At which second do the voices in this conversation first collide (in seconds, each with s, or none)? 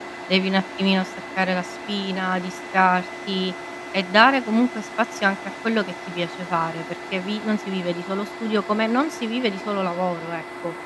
none